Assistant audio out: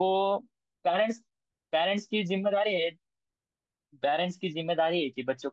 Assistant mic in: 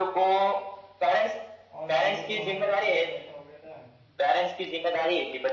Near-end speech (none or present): present